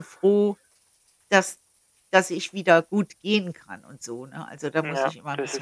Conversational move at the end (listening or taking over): taking over